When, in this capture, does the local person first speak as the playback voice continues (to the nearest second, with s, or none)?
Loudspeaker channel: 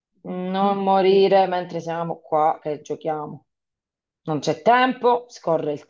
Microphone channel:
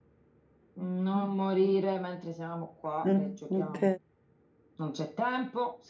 3 s